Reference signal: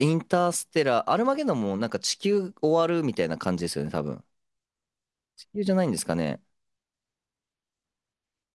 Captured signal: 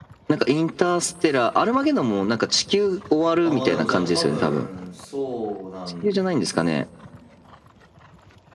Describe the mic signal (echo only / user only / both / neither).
both